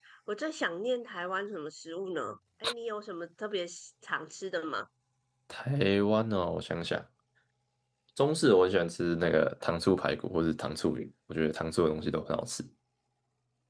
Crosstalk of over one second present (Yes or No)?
No